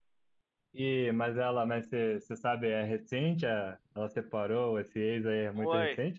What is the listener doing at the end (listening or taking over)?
taking over